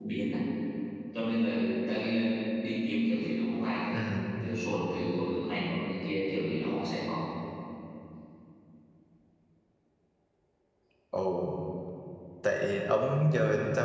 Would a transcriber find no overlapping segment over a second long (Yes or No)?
Yes